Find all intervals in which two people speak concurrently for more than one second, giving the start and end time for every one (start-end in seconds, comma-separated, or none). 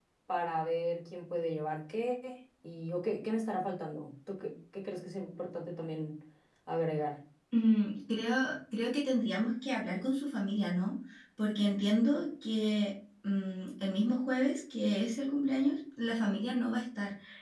none